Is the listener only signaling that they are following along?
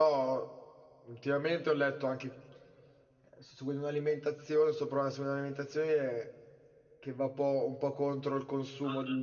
No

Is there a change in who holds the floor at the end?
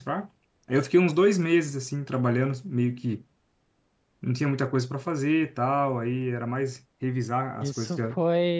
Yes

